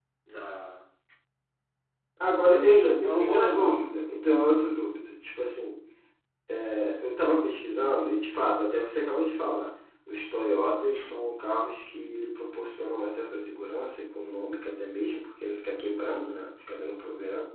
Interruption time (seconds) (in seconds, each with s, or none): 2.5 s